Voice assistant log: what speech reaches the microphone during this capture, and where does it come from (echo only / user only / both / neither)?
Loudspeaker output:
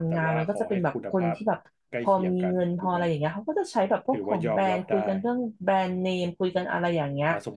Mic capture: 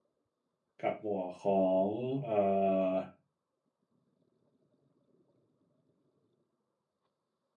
user only